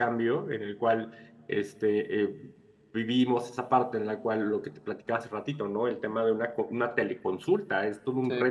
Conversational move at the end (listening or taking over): listening